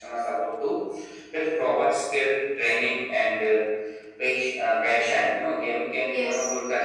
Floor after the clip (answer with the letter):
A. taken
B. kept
A